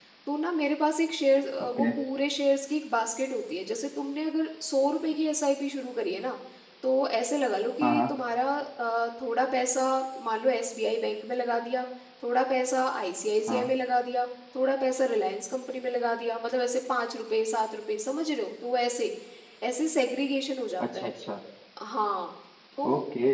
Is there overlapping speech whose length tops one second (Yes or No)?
No